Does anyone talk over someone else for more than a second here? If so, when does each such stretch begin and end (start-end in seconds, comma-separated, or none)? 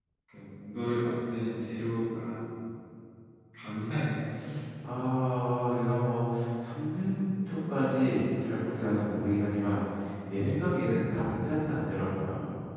none